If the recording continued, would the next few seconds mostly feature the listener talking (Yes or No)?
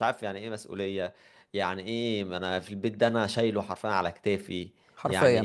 No